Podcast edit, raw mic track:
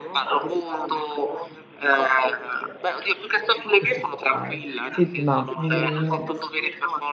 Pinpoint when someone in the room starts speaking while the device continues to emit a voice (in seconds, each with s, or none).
3.7 s